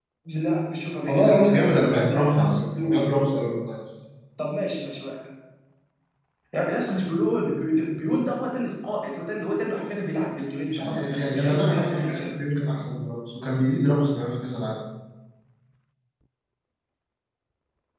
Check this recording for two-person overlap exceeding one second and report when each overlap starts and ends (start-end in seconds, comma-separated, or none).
1.1-3.1, 10.7-12.3